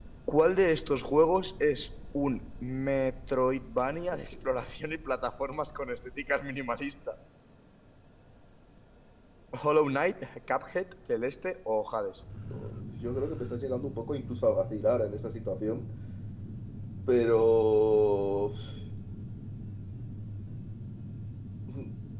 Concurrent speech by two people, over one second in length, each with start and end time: none

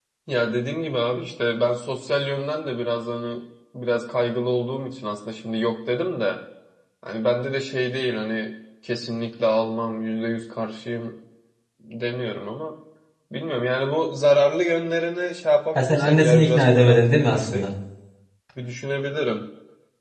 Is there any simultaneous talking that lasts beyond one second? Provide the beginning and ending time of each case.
15.8-17.7

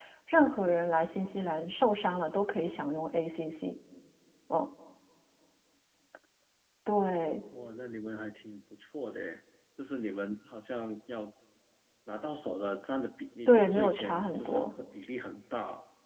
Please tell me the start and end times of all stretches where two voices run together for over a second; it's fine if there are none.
13.5-14.7

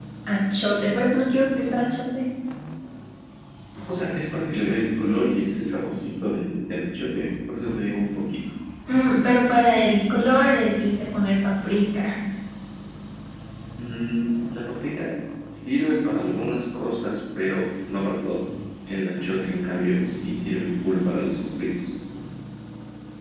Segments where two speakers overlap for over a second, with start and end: none

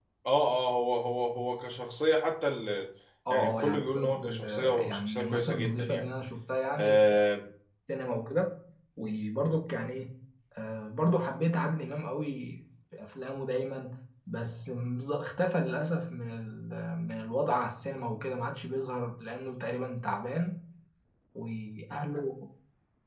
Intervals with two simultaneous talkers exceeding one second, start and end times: 3.3-6.0

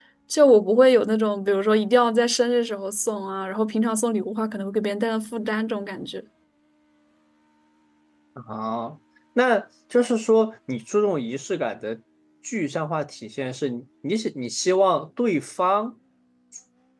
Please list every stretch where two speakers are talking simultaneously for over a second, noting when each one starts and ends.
none

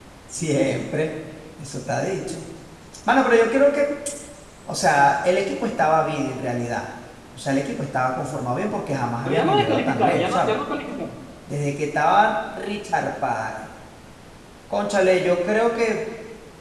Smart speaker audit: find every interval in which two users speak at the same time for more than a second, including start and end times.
9.2-10.5

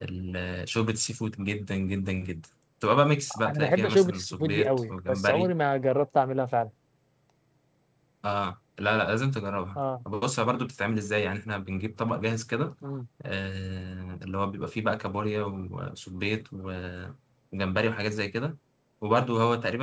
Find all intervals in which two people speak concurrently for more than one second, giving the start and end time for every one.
3.5-5.5

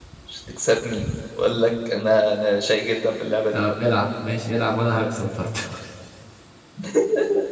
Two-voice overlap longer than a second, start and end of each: none

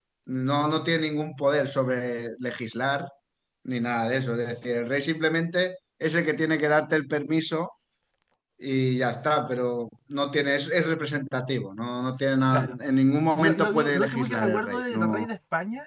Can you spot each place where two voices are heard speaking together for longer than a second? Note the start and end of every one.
13.3-15.3

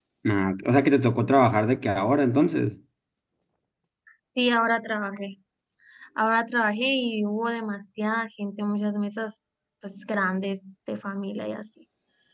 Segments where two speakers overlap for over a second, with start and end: none

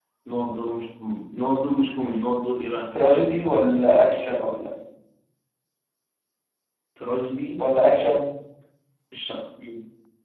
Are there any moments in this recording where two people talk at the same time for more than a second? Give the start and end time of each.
none

